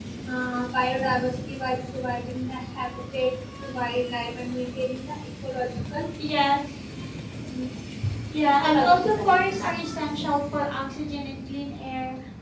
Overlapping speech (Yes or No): Yes